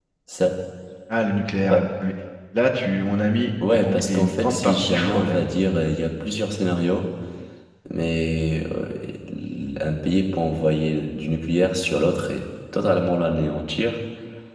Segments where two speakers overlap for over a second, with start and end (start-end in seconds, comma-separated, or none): 3.7-5.4